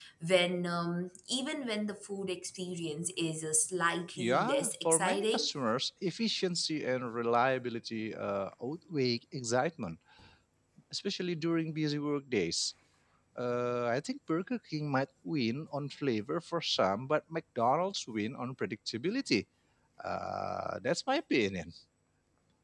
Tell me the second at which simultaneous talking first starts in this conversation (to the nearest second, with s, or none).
4 s